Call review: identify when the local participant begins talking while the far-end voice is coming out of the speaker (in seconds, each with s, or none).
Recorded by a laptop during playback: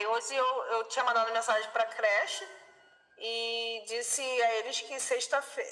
none